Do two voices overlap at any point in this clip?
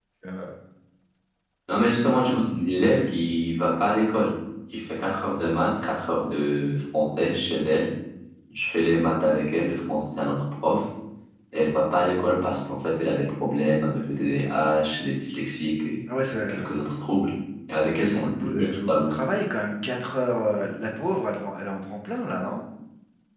Yes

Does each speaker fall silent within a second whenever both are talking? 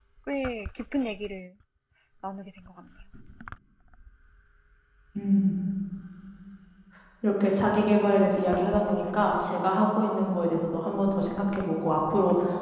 Yes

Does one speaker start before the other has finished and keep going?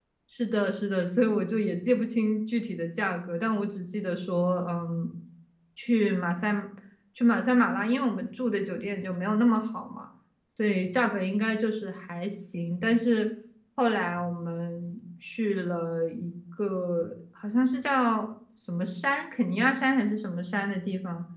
No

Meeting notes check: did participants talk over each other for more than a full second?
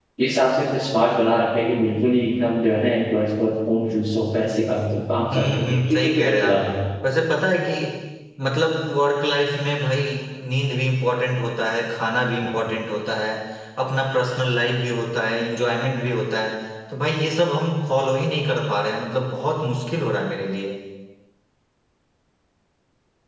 Yes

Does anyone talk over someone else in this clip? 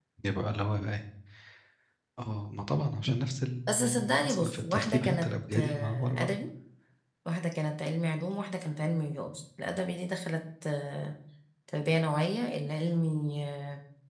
Yes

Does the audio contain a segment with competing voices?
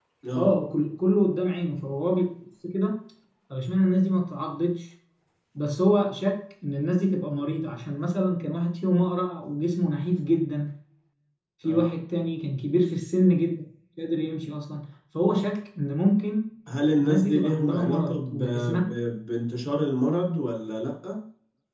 Yes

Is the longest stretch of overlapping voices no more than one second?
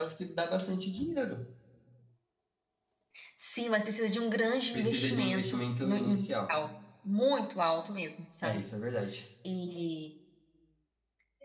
No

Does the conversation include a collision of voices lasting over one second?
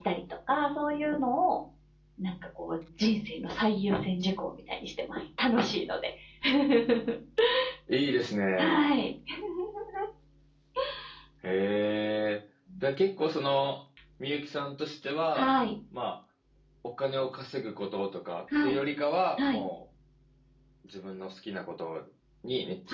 No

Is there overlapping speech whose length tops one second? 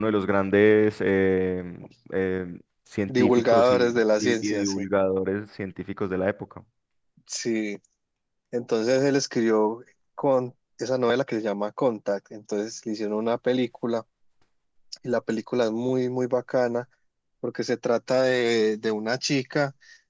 Yes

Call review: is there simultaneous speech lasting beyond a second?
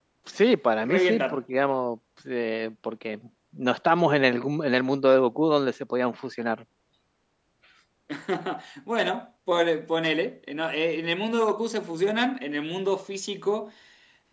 No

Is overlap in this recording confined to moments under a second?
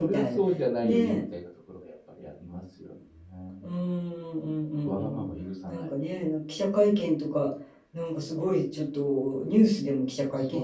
Yes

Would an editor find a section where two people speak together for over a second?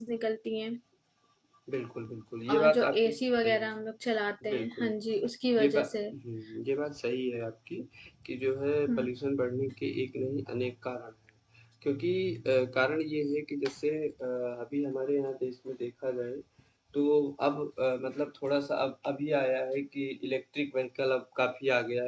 Yes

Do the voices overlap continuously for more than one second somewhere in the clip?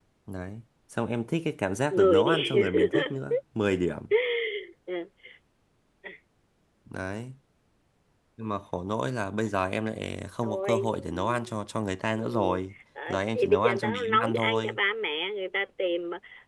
Yes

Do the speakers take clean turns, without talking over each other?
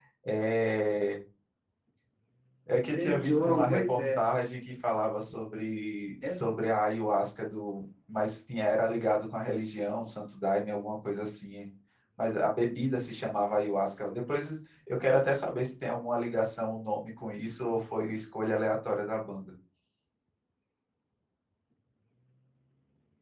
No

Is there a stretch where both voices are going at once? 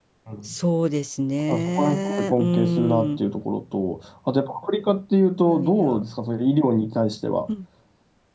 Yes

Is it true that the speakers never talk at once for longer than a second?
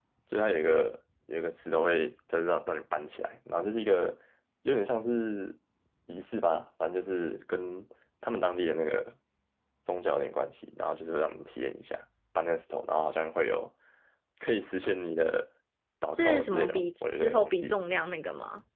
No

